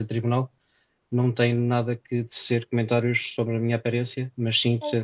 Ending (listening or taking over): listening